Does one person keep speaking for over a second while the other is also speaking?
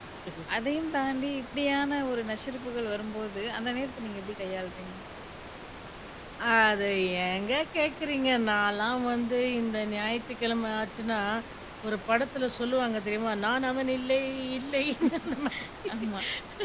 No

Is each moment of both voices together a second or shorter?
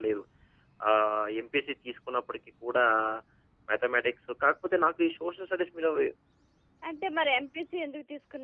Yes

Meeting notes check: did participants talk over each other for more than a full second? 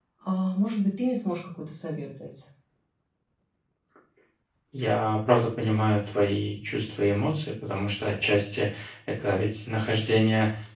No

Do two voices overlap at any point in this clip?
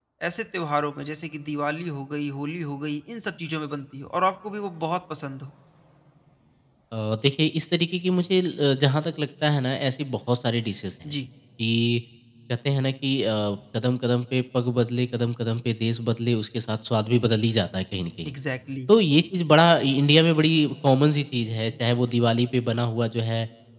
No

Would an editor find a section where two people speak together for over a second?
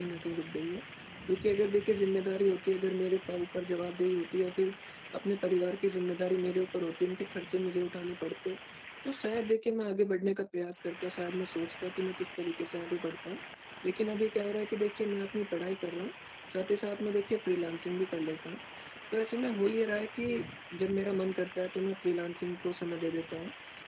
No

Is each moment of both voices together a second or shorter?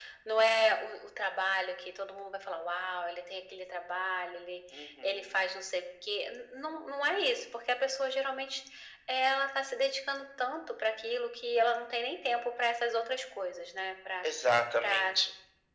Yes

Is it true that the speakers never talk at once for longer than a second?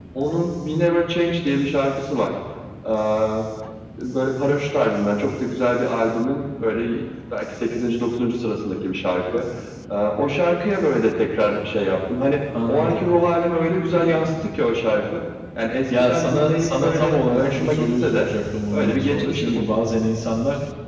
No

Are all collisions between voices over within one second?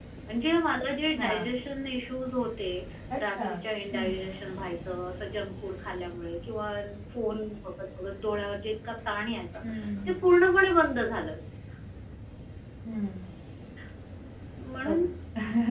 Yes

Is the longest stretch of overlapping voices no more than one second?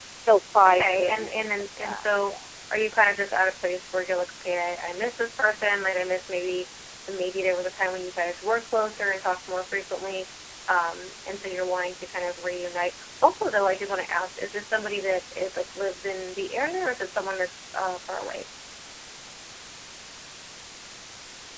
No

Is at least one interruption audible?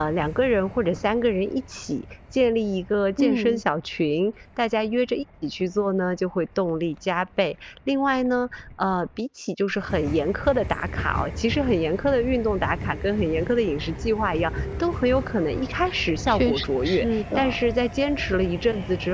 Yes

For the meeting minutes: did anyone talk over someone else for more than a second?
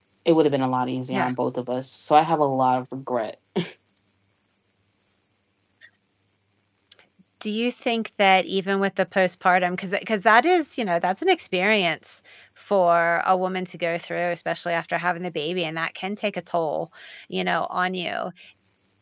No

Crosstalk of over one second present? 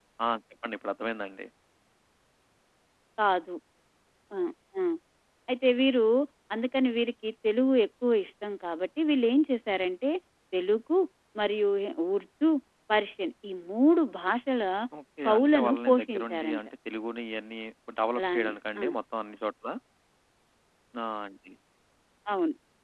Yes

